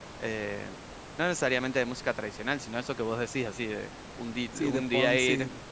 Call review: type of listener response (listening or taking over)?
taking over